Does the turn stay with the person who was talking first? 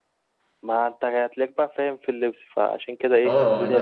No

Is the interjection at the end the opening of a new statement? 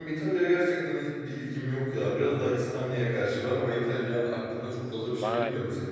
Yes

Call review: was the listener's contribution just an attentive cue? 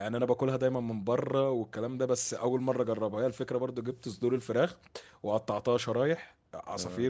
Yes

